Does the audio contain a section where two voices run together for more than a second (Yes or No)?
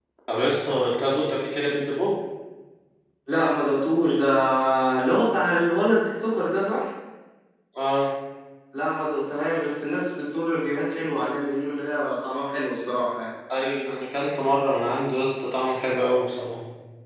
No